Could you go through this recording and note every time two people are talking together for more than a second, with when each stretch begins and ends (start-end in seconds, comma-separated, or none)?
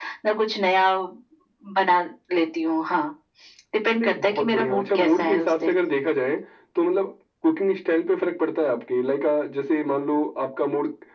4.0-5.8